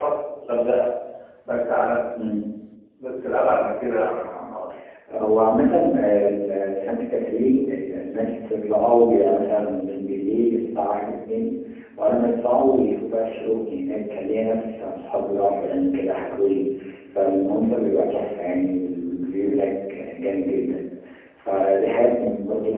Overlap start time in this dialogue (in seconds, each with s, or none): none